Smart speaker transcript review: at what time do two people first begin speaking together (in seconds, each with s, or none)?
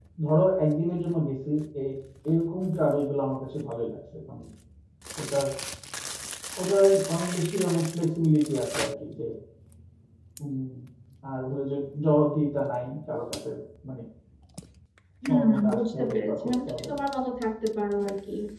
15.2 s